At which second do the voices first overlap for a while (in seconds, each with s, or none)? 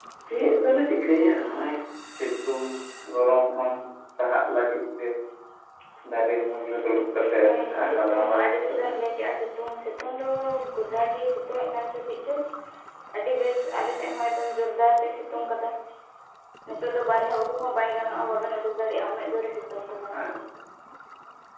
7.4 s